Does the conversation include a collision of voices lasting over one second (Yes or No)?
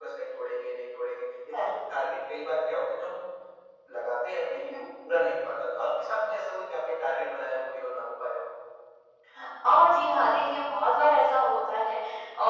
No